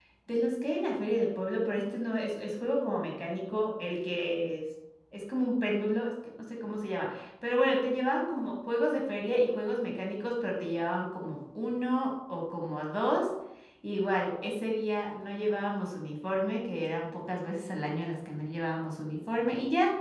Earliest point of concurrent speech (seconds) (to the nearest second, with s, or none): none